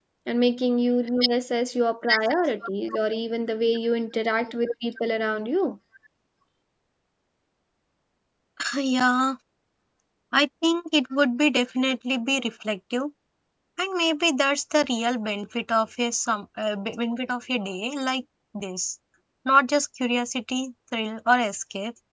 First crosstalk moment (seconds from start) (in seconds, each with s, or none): none